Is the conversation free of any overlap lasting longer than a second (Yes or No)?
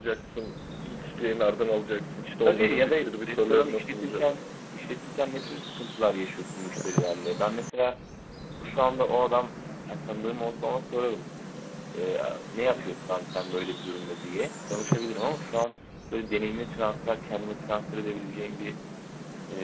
No